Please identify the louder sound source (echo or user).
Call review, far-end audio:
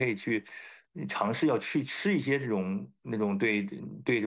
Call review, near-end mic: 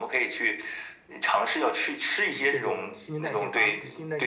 echo